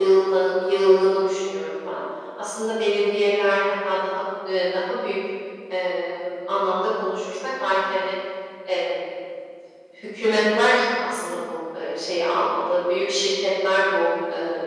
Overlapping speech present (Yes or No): No